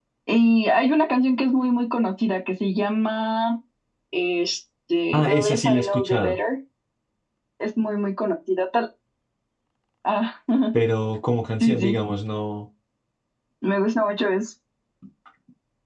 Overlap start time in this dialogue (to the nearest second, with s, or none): 5 s